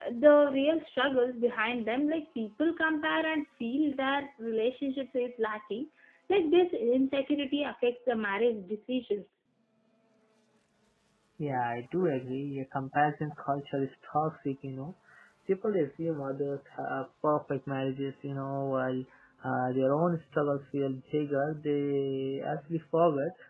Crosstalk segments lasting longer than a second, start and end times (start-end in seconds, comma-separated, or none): none